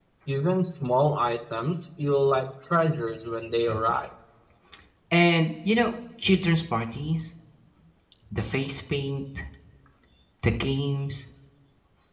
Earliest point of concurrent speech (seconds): none

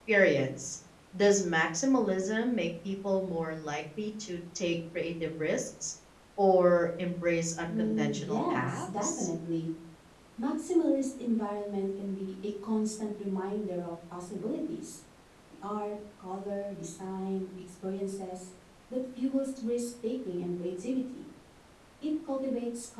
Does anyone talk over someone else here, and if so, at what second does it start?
7.7 s

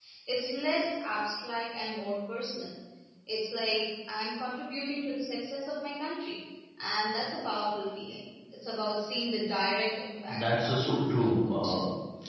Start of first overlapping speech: 10.3 s

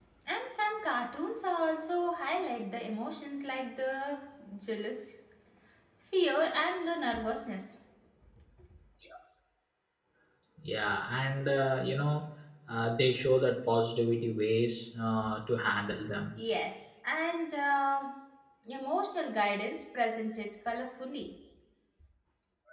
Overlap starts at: none

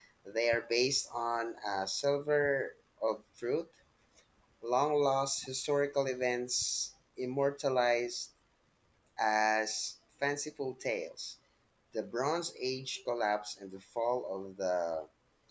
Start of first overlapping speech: none

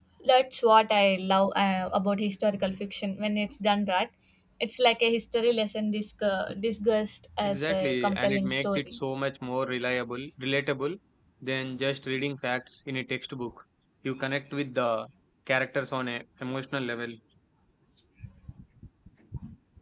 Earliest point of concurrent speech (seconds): 7.4 s

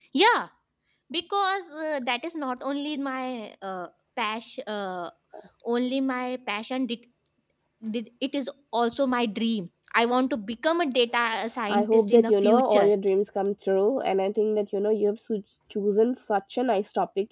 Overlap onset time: 11.7 s

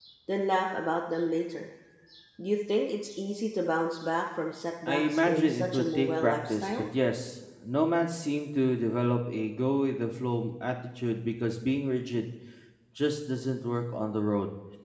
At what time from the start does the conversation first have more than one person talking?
4.9 s

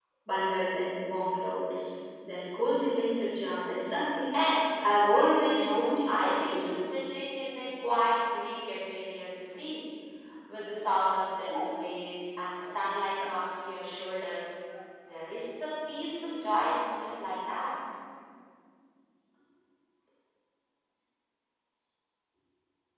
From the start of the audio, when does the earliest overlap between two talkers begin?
5.5 s

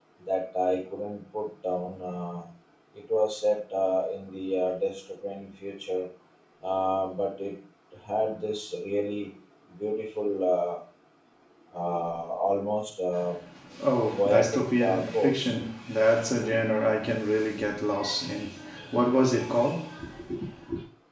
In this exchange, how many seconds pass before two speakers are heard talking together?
14.2 s

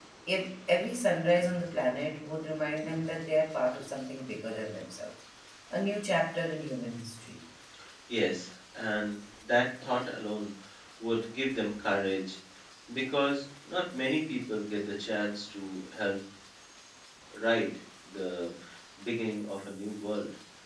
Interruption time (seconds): none

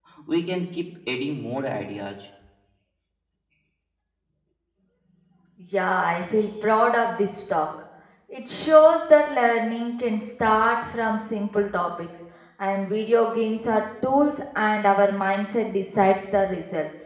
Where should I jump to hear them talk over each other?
none

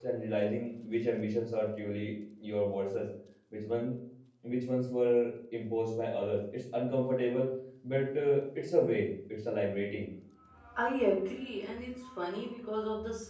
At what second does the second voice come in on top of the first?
none

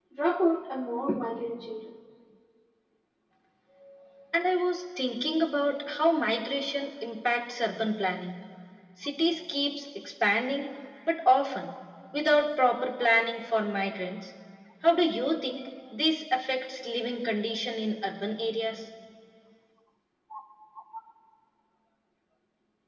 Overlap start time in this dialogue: none

